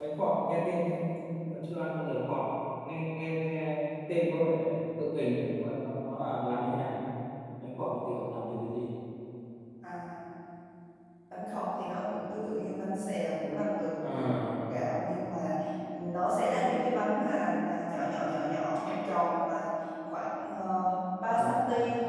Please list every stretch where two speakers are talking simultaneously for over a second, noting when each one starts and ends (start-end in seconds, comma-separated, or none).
none